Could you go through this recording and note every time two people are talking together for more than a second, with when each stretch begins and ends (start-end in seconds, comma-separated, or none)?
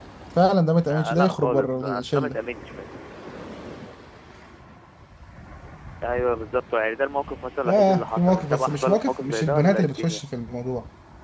0.9-2.4, 7.7-10.2